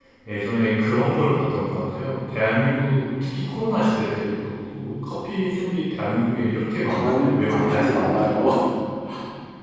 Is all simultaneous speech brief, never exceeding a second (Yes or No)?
No